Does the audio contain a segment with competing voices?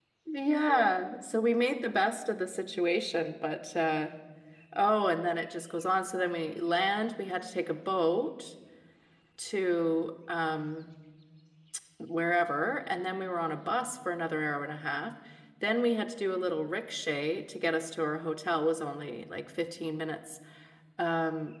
No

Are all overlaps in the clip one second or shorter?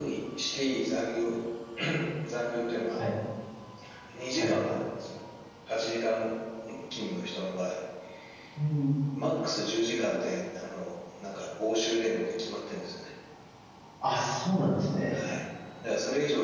Yes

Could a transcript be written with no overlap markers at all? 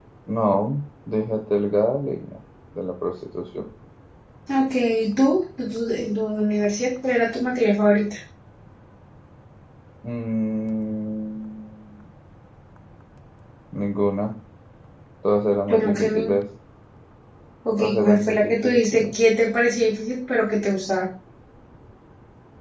No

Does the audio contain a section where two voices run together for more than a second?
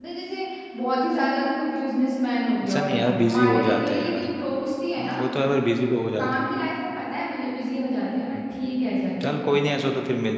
Yes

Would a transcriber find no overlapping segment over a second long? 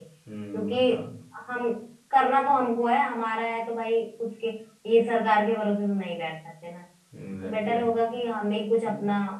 Yes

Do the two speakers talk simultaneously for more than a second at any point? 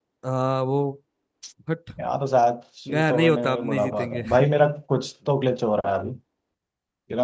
Yes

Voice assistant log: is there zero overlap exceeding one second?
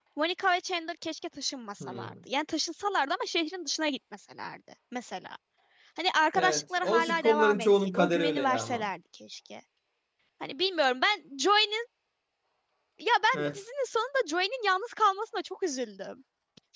No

